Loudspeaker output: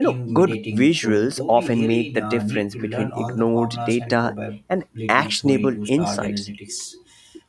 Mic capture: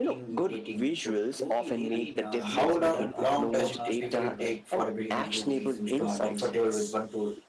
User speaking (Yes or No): Yes